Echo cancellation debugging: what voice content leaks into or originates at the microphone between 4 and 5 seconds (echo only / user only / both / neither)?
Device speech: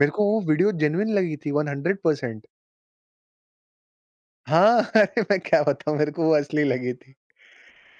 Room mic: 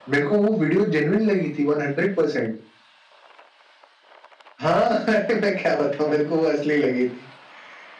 echo only